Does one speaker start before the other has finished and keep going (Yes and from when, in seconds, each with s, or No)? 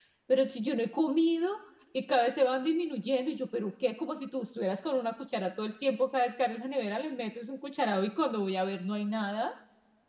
No